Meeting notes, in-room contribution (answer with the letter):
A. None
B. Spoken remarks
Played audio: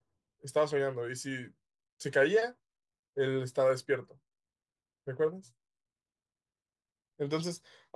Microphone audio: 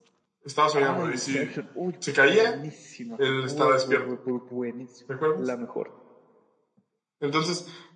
B